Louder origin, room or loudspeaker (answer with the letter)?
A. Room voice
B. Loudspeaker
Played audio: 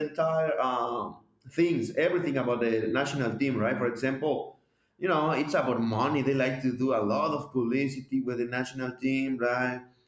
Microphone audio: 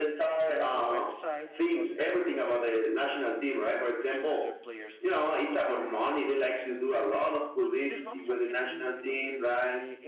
B